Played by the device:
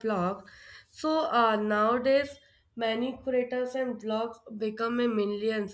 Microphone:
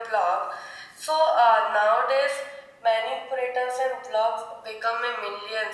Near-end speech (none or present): none